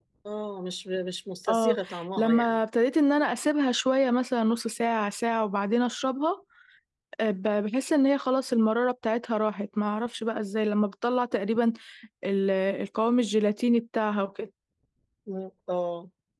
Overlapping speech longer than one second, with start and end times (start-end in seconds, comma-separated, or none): none